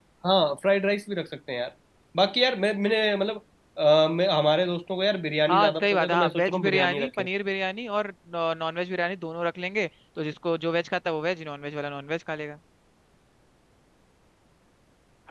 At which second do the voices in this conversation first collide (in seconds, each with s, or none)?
5.5 s